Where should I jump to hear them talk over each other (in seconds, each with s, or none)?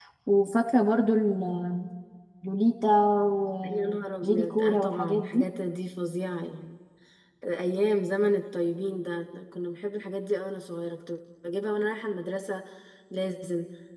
3.6 s